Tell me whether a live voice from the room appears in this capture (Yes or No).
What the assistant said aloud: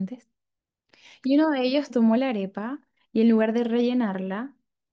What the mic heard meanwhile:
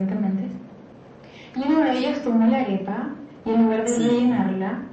Yes